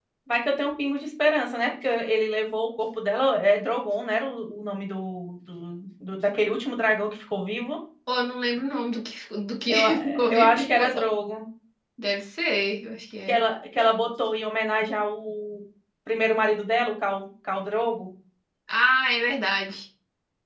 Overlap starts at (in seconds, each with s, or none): 9.7 s